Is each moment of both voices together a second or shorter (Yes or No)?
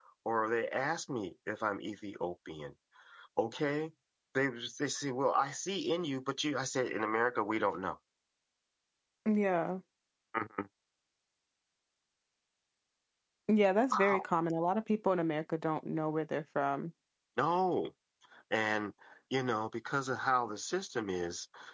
Yes